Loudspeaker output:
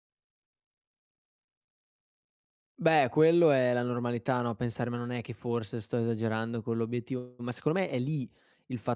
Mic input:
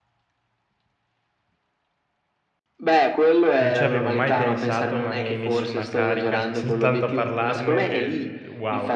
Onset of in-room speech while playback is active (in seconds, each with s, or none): 3.6 s